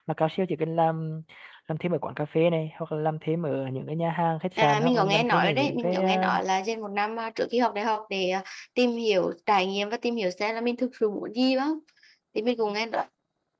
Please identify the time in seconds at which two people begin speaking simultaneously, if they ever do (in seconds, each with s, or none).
4.6 s